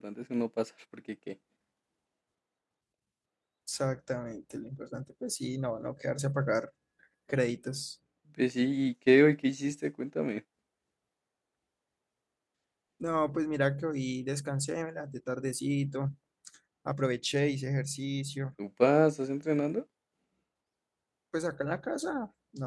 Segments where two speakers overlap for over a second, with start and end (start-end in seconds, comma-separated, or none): none